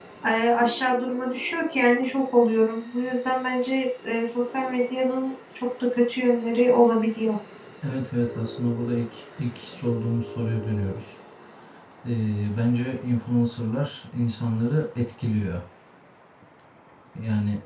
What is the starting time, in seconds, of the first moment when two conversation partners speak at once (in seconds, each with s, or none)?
none